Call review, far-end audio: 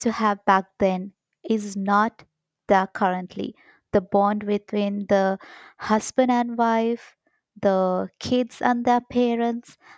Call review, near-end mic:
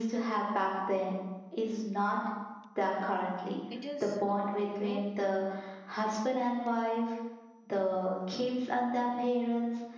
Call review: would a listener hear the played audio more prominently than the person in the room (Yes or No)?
Yes